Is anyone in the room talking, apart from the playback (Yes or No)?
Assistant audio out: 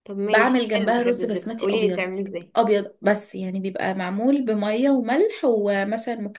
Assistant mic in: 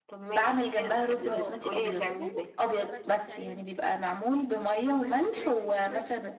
Yes